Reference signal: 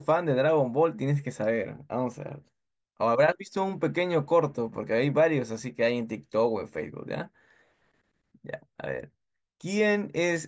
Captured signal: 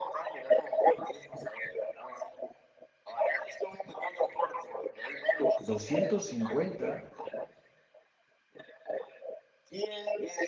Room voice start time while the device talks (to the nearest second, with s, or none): 6 s